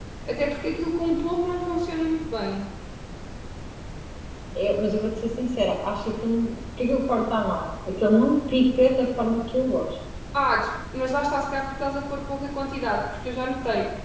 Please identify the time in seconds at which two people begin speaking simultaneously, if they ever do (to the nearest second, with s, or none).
none